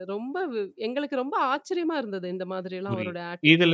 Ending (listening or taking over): taking over